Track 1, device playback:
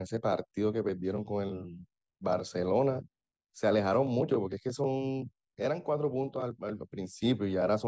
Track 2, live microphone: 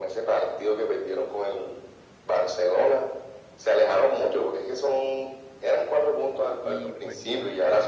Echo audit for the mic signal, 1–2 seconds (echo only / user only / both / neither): echo only